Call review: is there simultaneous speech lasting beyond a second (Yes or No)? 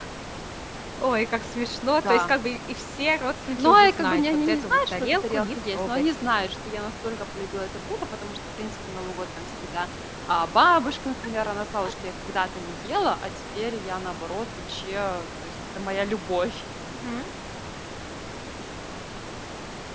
Yes